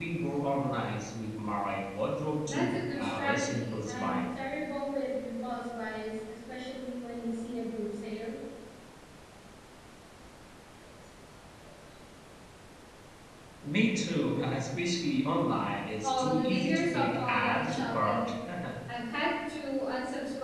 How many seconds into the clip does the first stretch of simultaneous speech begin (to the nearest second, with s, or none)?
2 s